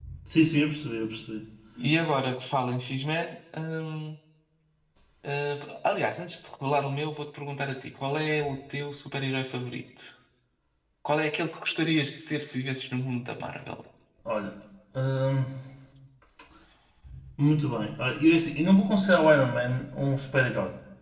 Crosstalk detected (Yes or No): No